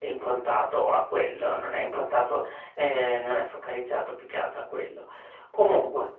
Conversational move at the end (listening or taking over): listening